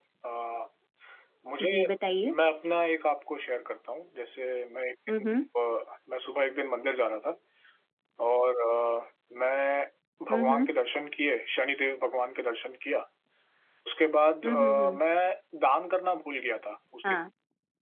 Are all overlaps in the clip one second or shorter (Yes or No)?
Yes